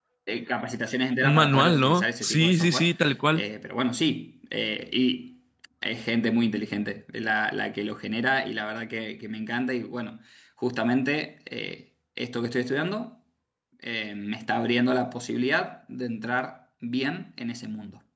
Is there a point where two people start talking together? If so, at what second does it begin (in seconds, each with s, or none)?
1.2 s